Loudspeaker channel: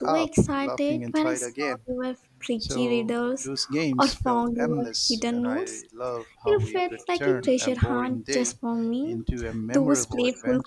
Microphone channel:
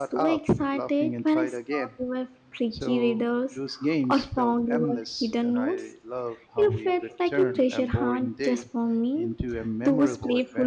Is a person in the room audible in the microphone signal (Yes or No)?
No